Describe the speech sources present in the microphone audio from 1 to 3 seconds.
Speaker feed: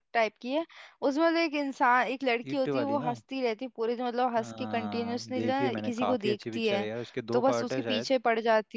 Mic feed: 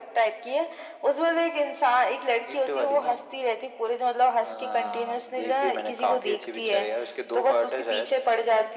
echo only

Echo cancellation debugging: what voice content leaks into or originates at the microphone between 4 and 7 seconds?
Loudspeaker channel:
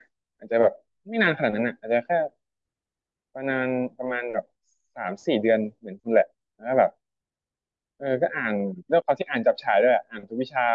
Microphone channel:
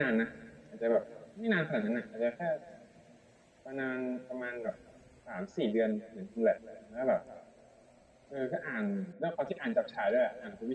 echo only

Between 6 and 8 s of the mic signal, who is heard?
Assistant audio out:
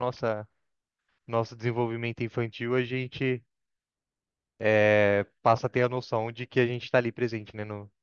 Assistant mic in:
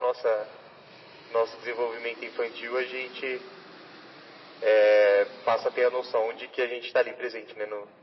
echo only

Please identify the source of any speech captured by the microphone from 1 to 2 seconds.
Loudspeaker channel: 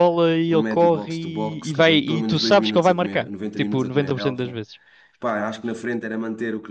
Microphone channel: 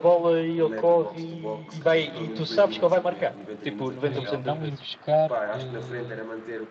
echo only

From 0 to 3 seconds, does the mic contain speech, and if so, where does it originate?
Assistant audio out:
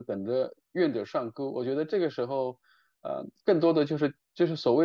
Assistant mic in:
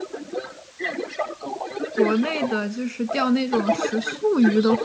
both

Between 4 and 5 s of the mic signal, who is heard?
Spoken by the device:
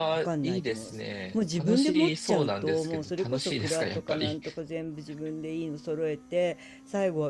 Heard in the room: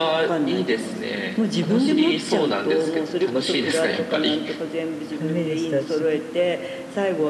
echo only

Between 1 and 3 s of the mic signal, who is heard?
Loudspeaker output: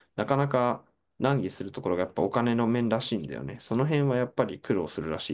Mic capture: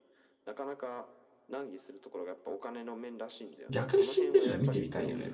echo only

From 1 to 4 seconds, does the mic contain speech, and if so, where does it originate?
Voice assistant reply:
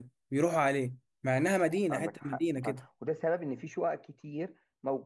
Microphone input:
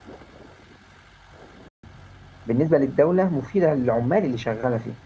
user only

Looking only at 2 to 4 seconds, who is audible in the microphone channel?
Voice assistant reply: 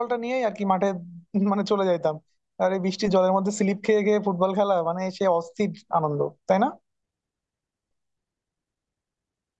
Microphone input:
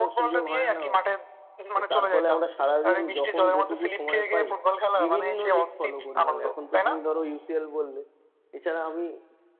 both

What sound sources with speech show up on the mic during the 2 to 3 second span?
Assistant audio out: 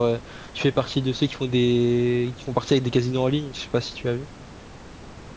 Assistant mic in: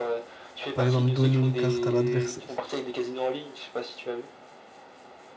both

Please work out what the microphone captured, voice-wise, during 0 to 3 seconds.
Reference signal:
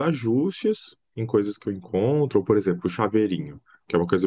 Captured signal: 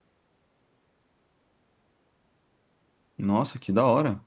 neither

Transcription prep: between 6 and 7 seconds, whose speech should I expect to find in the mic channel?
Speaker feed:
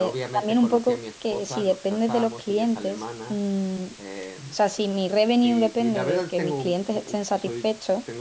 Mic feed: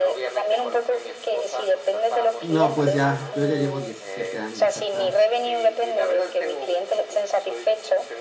echo only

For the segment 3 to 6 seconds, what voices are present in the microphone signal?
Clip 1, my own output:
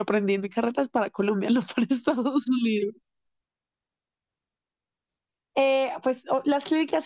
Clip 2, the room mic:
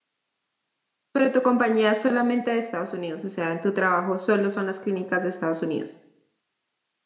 user only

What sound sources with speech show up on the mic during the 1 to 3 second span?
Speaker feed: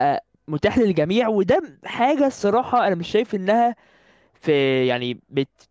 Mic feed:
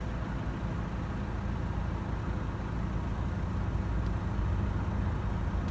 neither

